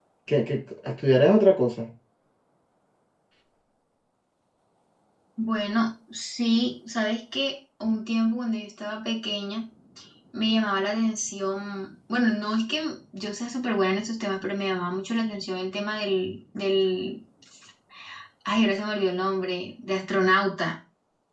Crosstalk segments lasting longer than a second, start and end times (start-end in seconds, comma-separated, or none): none